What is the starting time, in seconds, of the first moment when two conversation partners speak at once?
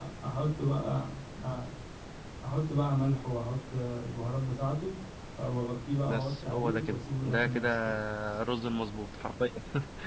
6.1 s

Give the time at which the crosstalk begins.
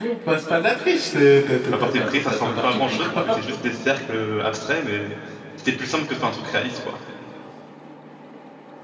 1.6 s

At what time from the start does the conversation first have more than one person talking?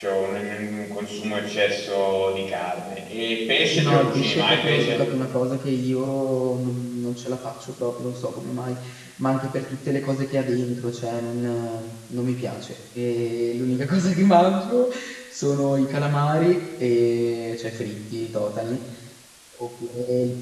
3.8 s

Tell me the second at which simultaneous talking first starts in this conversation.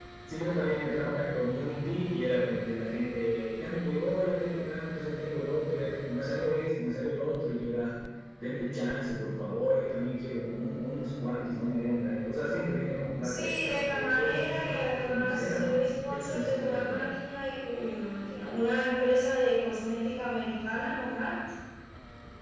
13.2 s

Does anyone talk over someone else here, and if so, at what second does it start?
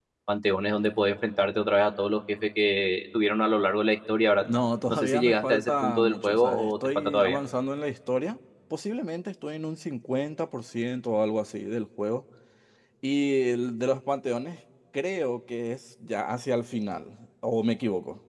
4.9 s

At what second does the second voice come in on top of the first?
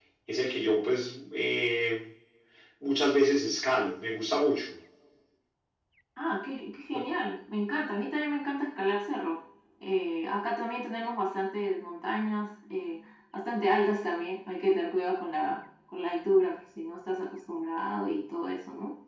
none

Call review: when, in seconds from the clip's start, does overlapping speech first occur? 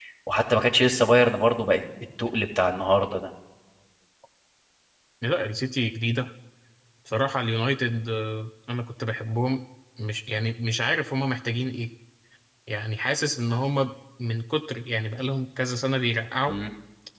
none

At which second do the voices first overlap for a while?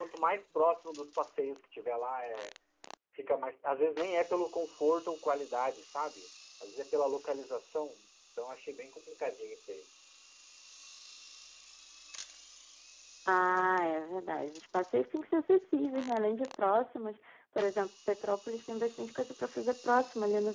none

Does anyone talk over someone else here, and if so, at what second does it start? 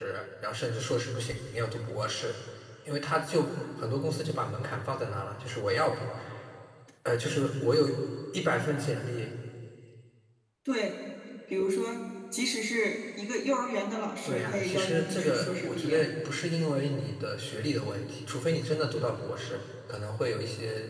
14.2 s

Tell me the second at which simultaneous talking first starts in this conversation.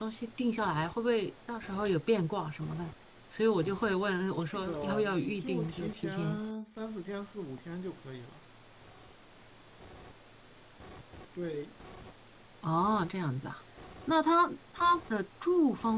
4.5 s

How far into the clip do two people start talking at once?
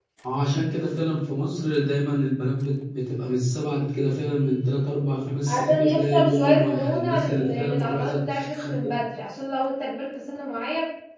5.5 s

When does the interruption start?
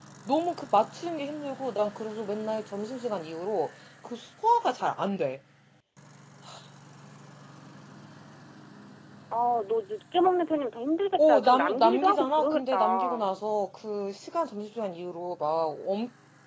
11.2 s

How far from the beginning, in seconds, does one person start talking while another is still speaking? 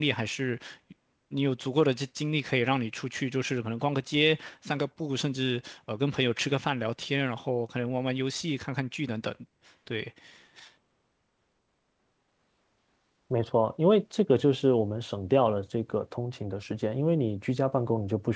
none

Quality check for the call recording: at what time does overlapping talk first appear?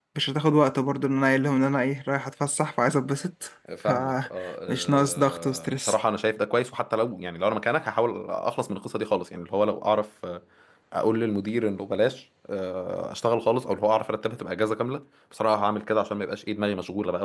3.7 s

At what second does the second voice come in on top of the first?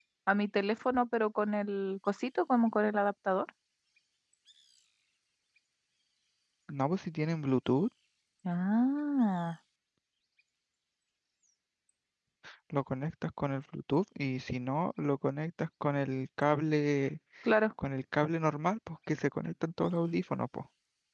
none

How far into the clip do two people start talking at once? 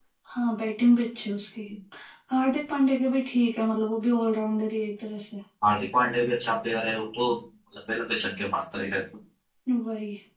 none

